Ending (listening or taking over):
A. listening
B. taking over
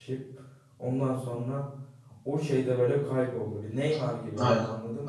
B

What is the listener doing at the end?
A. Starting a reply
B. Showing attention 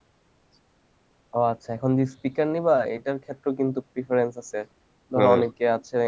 B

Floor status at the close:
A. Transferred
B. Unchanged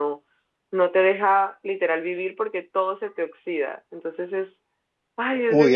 A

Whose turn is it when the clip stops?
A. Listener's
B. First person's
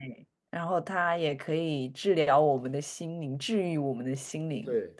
A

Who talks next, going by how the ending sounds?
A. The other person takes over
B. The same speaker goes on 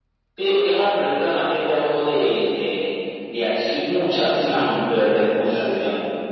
B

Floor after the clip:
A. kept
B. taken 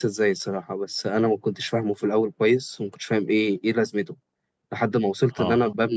A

